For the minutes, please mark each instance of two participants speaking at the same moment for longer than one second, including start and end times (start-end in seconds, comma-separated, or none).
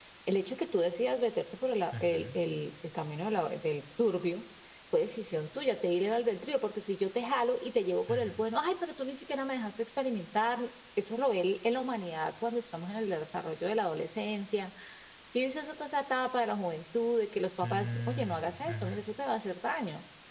17.6-19.0